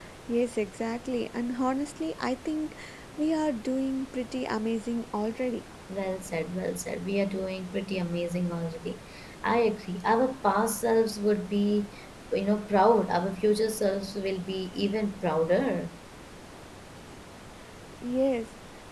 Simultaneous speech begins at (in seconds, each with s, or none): none